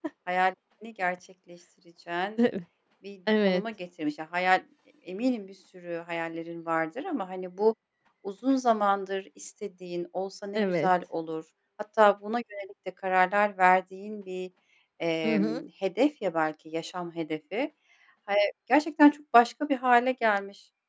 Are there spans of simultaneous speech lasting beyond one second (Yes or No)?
No